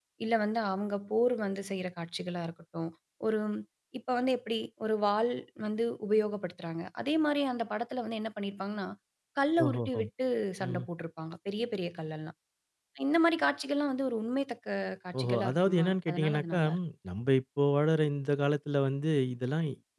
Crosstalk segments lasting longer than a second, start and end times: 15.2-16.6

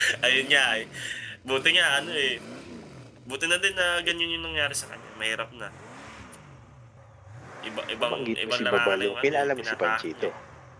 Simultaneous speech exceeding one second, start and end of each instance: 8.0-10.3

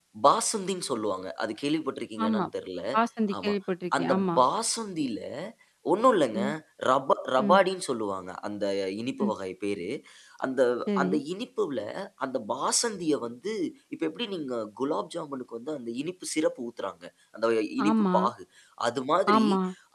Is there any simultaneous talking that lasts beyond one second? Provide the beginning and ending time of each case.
none

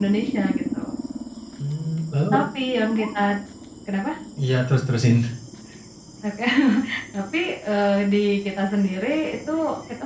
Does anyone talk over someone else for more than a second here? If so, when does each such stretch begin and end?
none

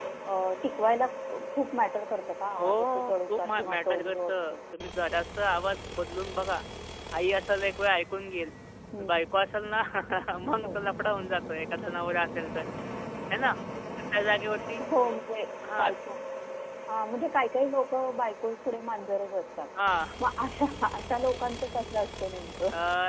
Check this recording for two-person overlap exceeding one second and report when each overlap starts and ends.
2.5-4.3

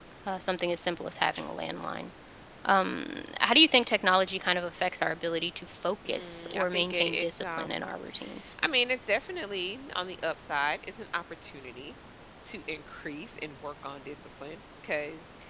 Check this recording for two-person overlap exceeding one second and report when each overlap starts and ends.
6.0-7.8

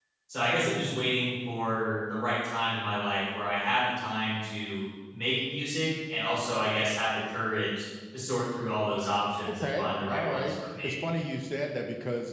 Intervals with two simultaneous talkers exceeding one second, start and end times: 9.6-10.9

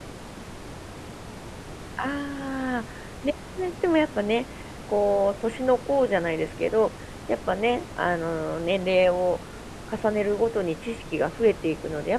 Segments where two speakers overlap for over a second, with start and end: none

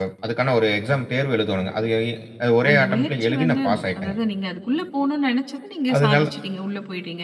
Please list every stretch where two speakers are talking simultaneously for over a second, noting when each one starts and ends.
2.7-4.2

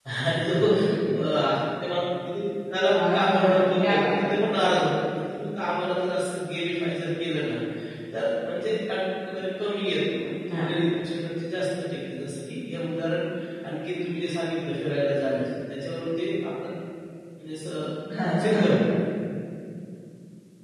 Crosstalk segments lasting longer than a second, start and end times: 3.1-4.3

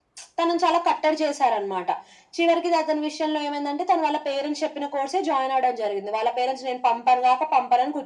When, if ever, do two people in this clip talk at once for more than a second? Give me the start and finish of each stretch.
none

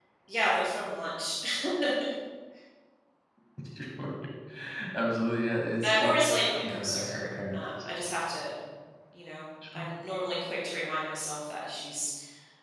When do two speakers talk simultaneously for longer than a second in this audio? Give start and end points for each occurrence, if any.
5.8-7.6

